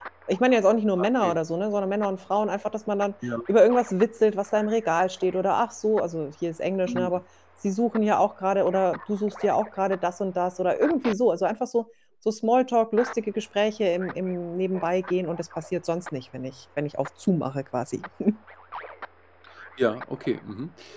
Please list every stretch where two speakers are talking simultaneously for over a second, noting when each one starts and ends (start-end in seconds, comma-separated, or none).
none